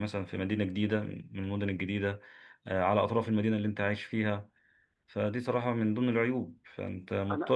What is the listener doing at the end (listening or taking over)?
listening